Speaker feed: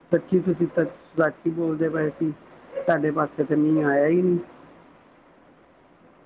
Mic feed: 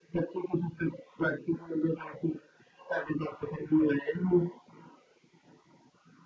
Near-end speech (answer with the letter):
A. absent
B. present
A